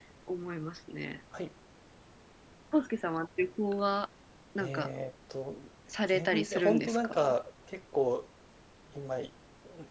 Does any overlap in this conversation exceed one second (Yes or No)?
Yes